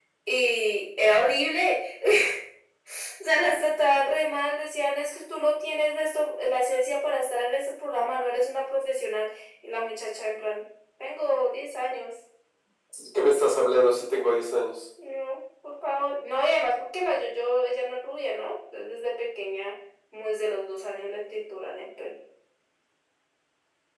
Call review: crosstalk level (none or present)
none